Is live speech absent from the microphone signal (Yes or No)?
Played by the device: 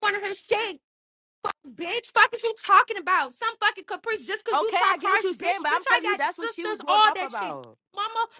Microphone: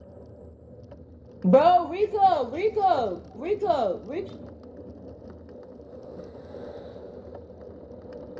No